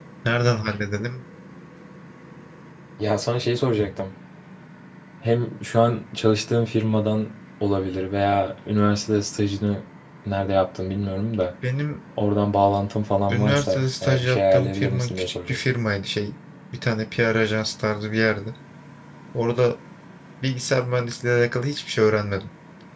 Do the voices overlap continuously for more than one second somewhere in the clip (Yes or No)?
Yes